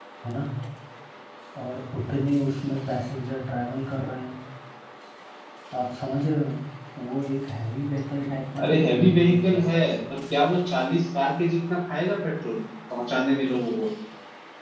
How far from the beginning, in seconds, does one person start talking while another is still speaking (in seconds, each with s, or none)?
8.6 s